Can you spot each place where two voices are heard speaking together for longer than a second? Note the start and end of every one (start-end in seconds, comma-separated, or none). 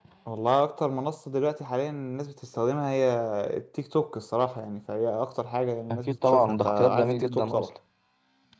5.9-7.6